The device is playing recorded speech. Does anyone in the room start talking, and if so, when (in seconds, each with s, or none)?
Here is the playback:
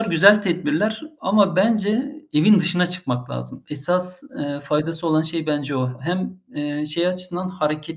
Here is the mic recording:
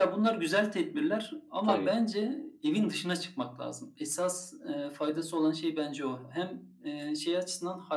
1.6 s